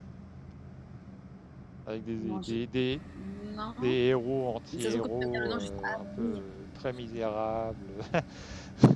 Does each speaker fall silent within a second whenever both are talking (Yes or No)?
No